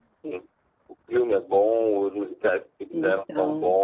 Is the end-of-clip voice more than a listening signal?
No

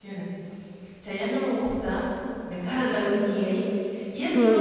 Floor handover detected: Yes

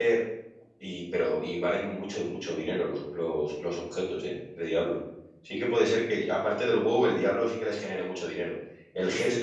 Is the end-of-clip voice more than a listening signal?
No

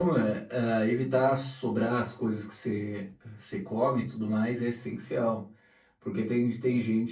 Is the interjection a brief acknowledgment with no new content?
Yes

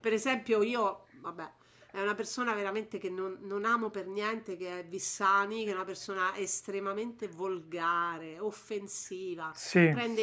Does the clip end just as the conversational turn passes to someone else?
No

